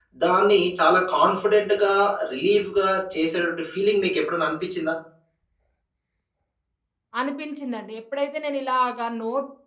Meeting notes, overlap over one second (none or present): none